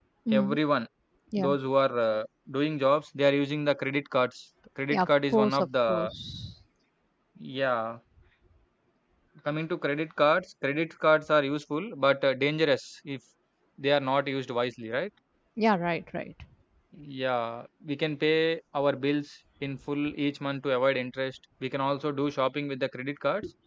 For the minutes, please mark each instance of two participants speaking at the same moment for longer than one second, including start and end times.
4.9-6.1

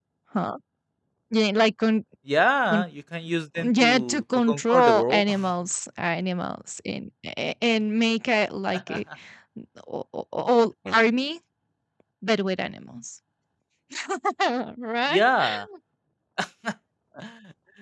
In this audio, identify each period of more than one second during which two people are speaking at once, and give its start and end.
3.6-5.3

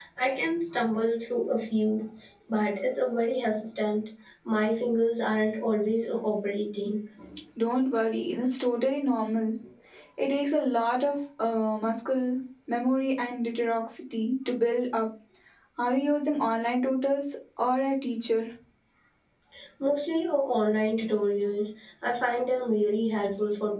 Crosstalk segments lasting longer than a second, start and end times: none

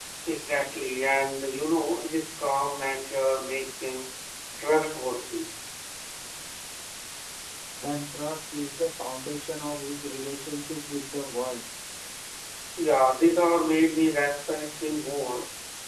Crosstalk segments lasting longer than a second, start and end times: none

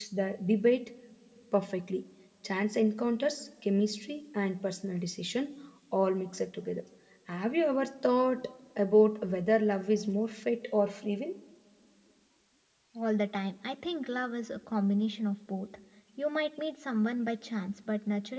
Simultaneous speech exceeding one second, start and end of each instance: none

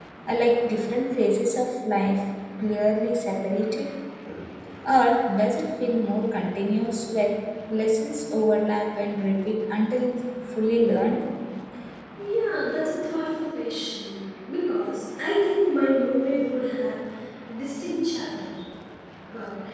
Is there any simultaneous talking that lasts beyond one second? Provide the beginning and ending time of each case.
none

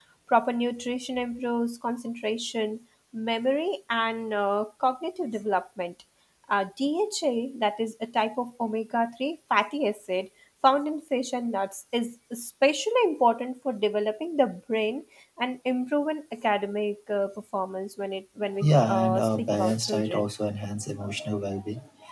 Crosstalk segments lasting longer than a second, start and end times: 18.6-20.3

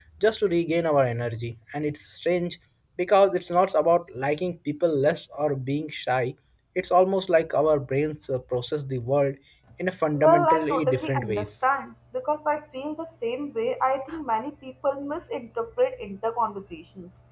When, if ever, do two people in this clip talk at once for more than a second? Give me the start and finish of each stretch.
10.2-11.4

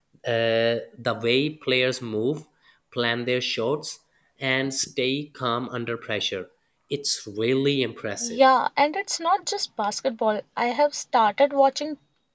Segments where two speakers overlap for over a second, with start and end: none

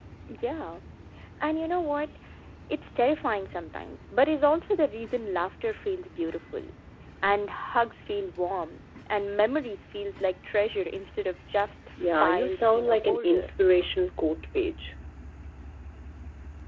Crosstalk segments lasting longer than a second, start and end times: 12.2-13.5

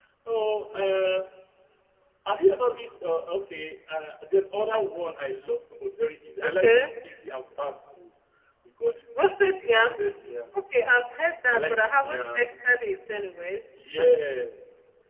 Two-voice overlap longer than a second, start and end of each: 11.5-12.8

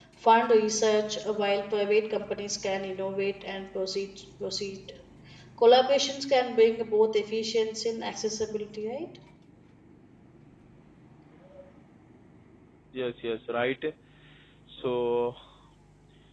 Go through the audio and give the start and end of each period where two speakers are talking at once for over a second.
none

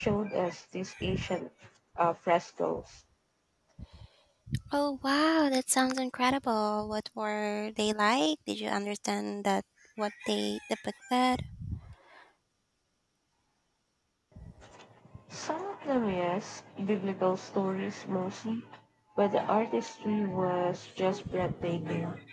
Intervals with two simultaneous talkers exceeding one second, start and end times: none

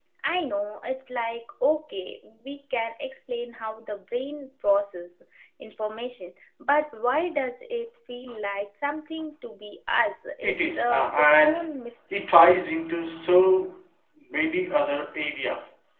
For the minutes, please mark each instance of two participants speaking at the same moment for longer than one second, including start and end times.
10.4-11.6

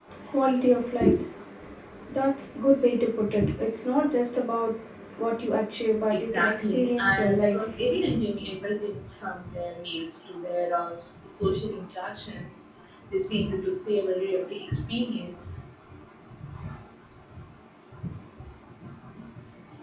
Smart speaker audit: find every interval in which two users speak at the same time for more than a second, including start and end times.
6.1-7.8

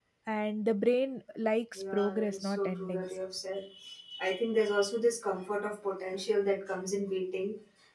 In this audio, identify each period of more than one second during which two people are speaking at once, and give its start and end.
1.8-3.1

